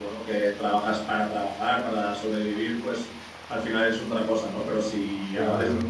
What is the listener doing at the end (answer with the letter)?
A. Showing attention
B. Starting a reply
A